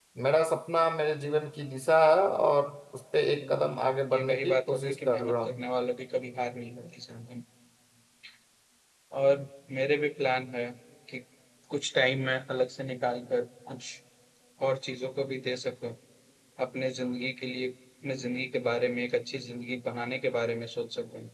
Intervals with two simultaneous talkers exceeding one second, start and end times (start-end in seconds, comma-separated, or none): 3.4-5.6